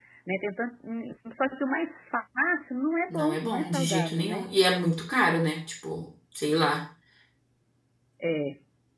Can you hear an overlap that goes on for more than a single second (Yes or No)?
Yes